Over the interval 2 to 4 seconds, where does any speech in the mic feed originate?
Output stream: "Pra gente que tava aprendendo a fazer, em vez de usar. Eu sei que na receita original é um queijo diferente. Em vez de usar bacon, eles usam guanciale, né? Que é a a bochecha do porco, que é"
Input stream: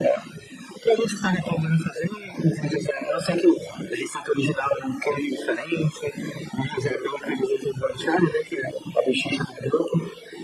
echo only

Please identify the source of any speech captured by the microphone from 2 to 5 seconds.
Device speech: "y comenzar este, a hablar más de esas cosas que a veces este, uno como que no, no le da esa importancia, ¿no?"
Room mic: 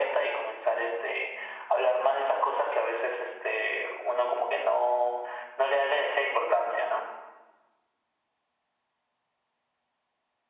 echo only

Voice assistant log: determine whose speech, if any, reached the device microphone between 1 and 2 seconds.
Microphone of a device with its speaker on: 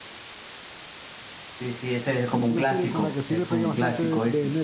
echo only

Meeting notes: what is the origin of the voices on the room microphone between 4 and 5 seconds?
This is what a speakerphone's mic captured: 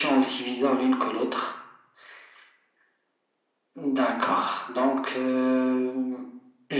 echo only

